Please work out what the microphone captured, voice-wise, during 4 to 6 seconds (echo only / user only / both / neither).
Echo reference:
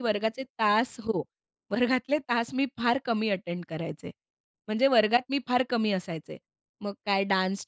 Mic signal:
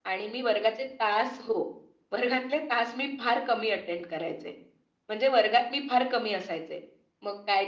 echo only